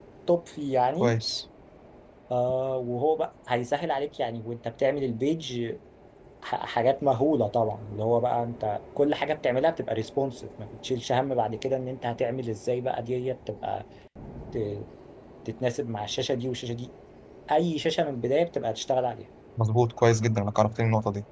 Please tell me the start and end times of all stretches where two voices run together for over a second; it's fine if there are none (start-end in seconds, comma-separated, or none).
none